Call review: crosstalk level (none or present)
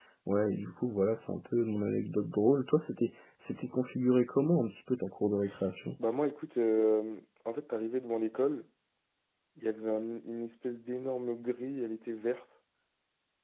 none